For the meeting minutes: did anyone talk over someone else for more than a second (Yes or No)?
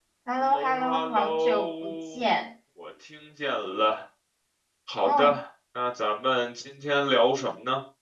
Yes